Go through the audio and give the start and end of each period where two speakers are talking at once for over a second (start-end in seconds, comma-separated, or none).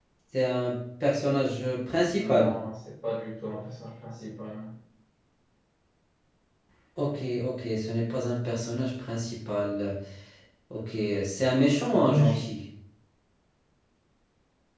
none